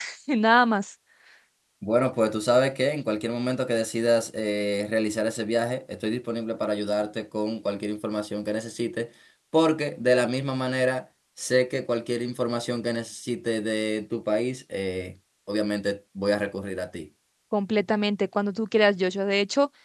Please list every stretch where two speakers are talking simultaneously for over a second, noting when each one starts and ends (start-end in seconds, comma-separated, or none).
none